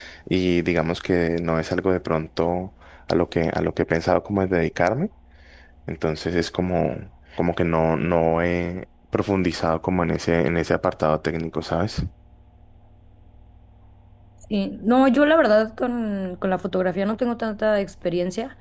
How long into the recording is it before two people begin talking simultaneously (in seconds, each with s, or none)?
none